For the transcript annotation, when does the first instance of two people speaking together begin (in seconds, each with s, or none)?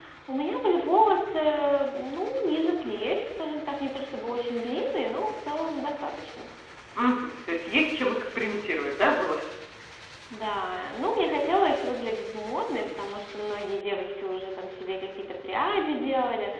none